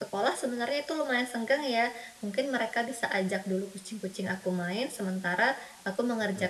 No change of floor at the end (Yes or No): Yes